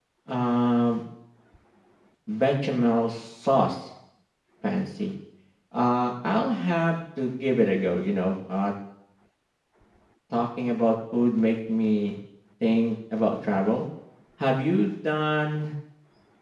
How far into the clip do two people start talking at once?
none

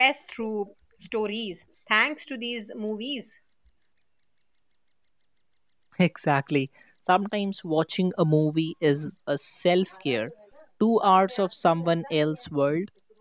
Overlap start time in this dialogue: none

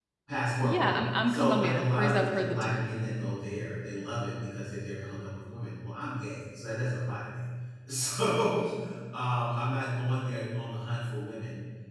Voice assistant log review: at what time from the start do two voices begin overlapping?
0.6 s

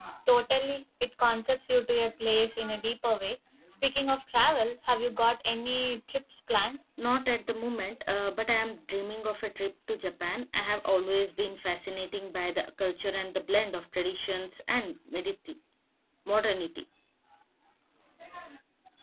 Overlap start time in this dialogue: none

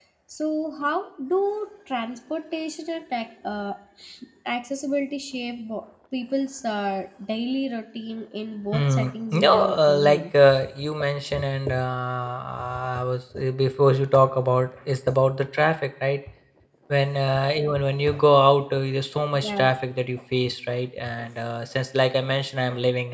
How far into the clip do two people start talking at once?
8.7 s

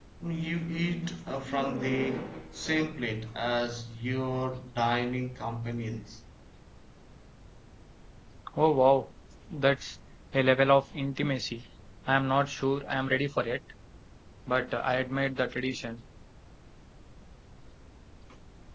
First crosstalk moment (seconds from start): none

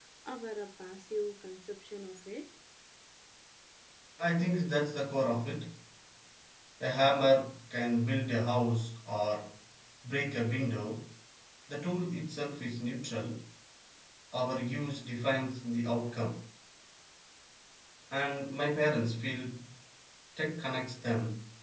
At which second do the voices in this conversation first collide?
none

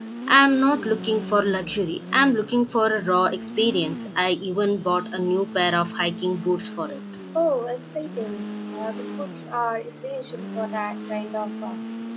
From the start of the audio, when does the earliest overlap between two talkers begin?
none

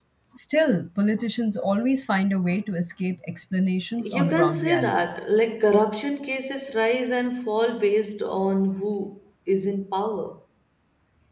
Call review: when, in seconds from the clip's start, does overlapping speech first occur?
4.0 s

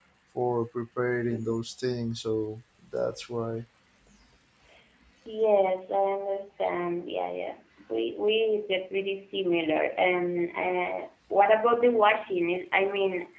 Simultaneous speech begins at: none

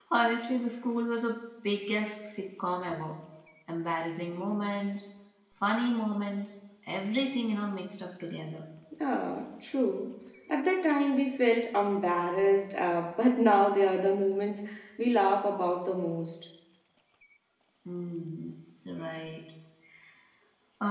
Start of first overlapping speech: none

